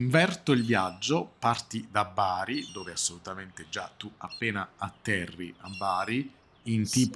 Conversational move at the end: listening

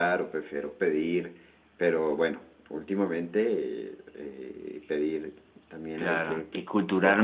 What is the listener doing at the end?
taking over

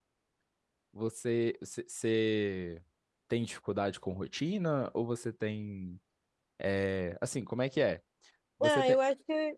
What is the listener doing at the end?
taking over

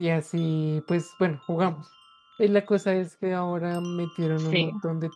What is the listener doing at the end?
listening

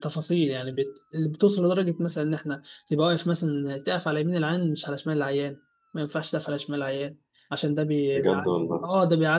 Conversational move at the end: listening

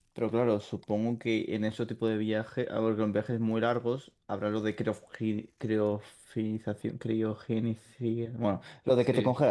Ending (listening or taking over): taking over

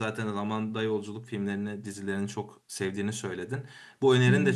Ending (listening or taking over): listening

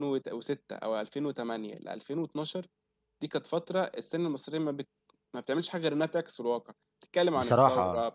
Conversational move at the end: listening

